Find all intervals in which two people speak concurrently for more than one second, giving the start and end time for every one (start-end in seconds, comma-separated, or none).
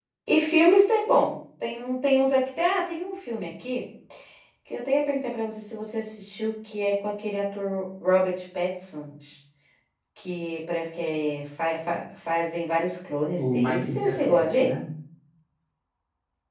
13.4-14.7